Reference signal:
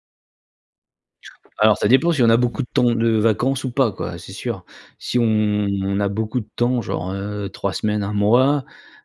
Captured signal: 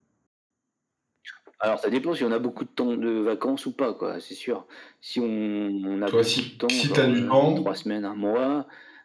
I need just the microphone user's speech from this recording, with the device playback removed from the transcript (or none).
Toi, si si tu as du temps